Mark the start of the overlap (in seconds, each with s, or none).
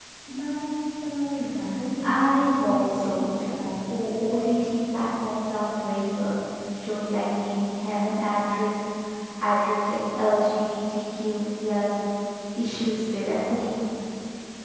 2.0 s